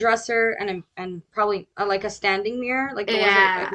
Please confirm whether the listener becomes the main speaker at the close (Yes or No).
Yes